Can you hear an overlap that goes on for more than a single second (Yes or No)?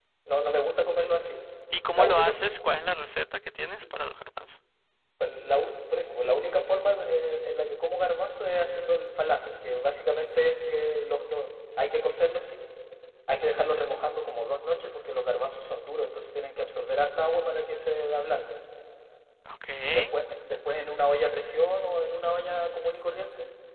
No